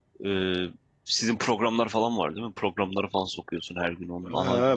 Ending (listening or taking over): taking over